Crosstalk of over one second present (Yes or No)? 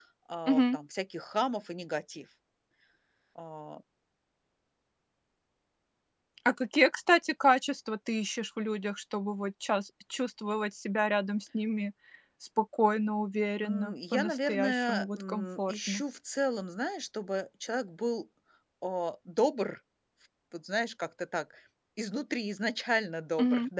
Yes